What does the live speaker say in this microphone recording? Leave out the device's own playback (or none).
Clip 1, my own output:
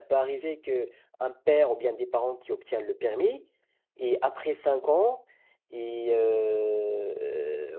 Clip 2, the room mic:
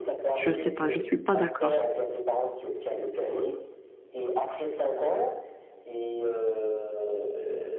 je sais pas, je suis pas d'accord.